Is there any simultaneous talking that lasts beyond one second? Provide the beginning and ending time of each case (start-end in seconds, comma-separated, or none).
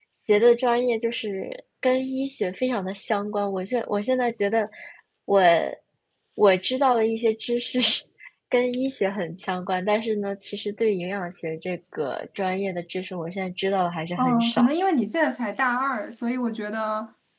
none